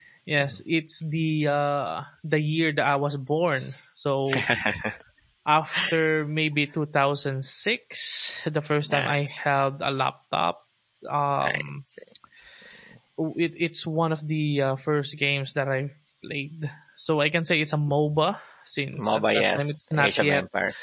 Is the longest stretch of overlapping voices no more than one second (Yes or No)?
No